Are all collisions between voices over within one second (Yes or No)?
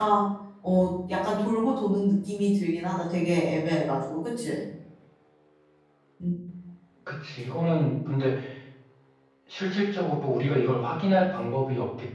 Yes